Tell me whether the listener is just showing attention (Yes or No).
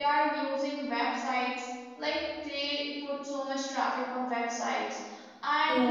Yes